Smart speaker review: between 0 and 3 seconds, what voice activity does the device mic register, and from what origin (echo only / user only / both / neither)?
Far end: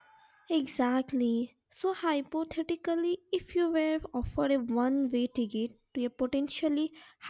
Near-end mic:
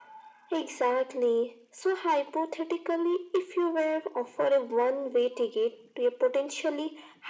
echo only